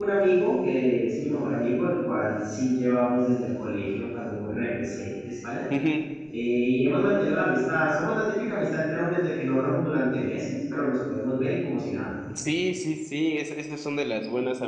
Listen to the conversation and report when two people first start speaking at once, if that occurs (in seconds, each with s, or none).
none